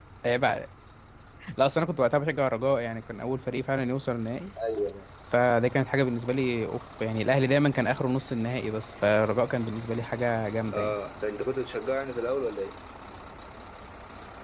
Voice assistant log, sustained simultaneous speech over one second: none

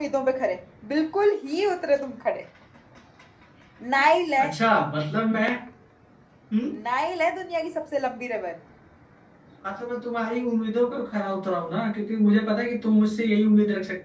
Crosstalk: none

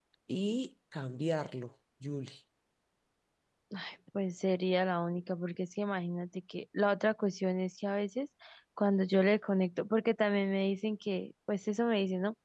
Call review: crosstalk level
none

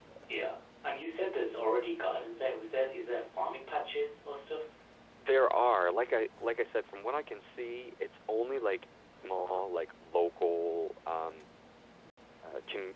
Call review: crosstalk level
none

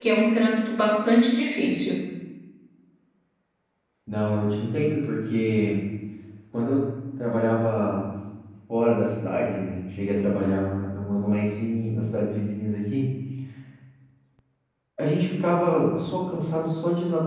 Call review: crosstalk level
none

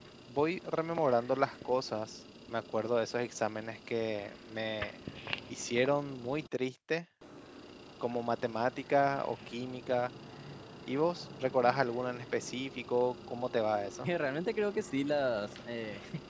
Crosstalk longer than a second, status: none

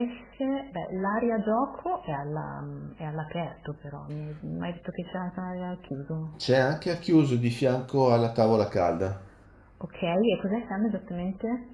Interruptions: none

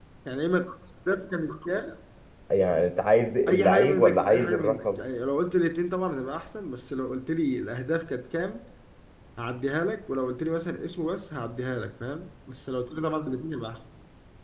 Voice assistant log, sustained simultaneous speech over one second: present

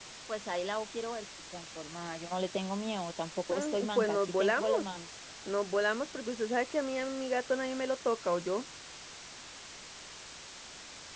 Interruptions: present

